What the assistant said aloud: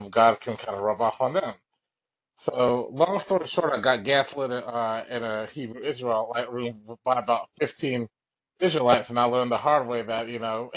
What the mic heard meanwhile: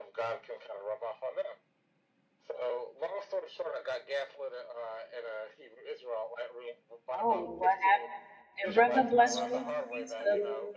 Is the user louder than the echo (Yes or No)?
Yes